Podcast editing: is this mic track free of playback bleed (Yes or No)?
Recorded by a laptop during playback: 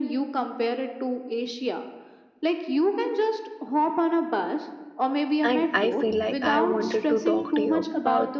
No